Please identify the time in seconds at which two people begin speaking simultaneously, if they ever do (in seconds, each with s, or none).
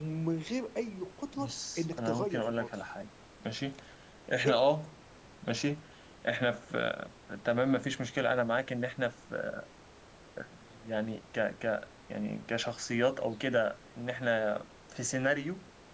1.3 s